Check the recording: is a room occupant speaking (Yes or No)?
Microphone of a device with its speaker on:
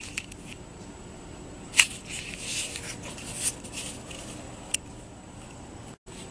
No